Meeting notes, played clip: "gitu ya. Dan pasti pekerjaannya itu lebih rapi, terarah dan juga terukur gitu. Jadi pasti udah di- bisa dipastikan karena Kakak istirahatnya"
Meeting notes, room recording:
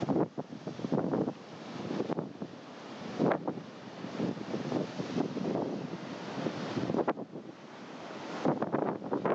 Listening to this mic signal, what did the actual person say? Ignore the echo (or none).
none